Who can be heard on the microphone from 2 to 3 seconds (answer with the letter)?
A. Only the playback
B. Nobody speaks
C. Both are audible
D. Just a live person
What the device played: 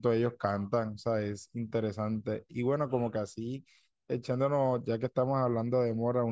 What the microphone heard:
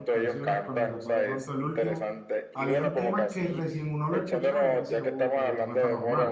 C